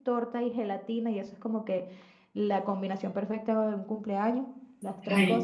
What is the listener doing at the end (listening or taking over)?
listening